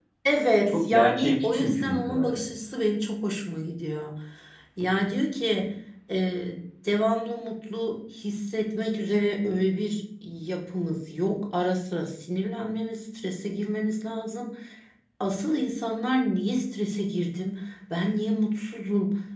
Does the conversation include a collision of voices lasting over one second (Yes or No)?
Yes